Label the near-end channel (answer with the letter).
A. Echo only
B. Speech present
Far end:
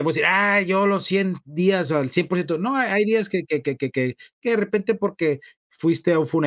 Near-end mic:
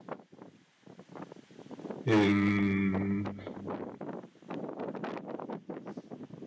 B